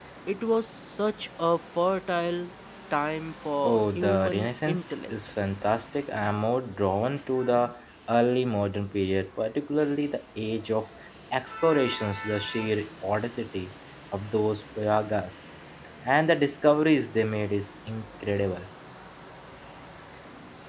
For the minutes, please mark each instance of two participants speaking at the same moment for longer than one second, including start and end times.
3.6-5.1

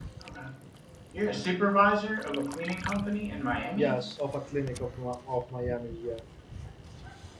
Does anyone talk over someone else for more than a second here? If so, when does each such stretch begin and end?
none

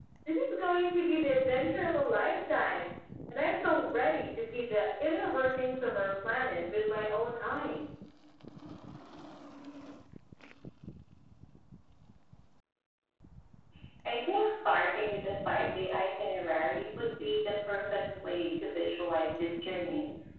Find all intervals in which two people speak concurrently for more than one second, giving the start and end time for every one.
none

